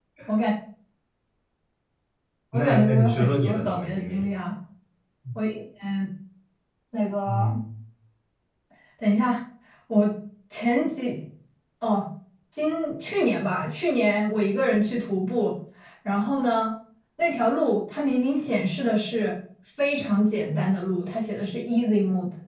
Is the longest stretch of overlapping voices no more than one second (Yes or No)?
No